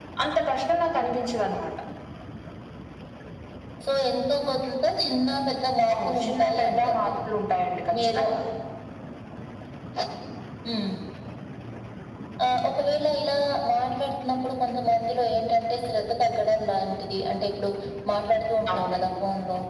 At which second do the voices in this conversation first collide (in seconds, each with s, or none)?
5.9 s